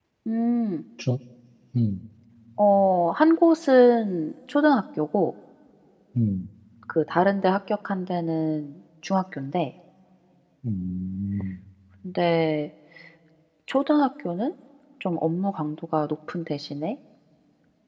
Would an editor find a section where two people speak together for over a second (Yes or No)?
No